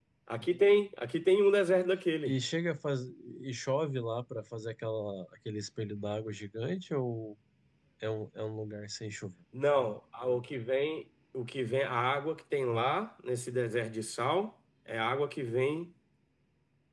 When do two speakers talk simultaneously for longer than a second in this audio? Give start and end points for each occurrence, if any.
none

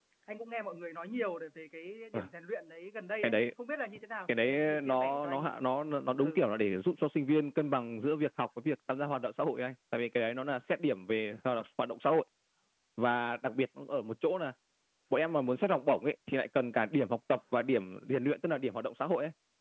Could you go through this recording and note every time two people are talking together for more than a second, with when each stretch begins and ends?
4.3-5.5

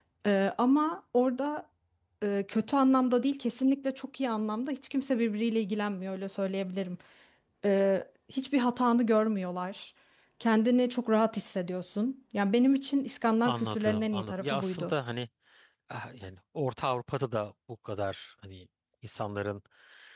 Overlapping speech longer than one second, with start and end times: 13.4-14.9

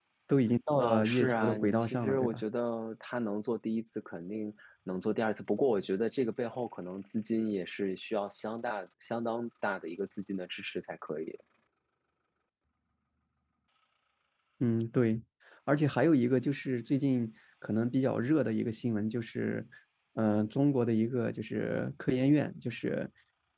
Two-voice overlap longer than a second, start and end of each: 0.7-2.4

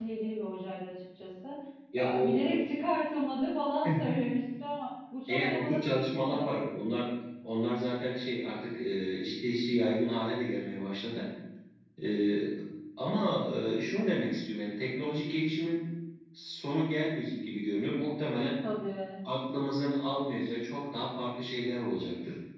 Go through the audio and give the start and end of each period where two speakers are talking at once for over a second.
5.3-6.9

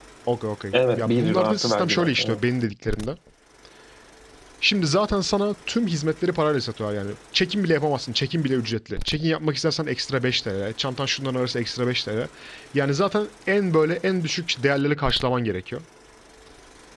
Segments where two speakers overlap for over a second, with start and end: 0.7-2.4

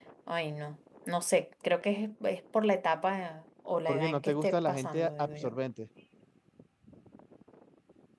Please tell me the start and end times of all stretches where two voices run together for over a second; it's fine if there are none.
3.9-5.5

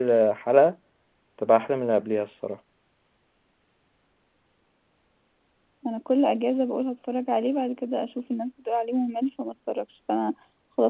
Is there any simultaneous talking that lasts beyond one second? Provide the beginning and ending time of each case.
none

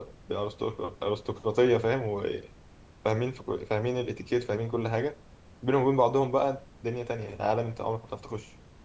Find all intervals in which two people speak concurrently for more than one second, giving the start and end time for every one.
none

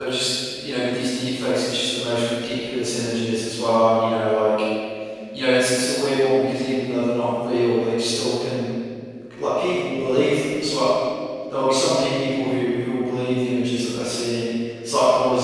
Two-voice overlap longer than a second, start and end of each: none

